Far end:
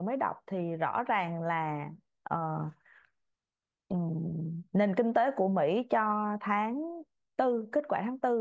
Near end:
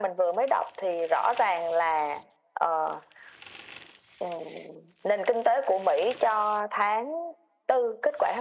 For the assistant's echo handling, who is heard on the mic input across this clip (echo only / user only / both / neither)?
echo only